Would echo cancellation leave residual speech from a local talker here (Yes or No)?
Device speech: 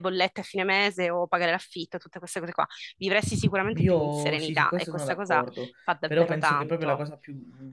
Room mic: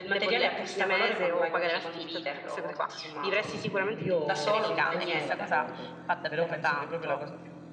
Yes